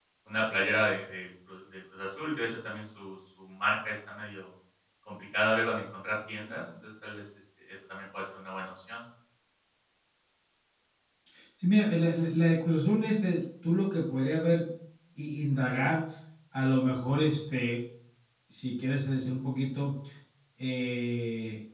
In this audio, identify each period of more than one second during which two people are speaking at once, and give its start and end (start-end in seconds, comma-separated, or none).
none